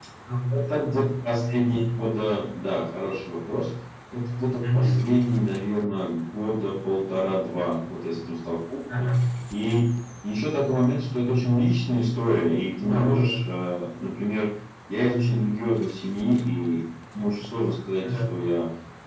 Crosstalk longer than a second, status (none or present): none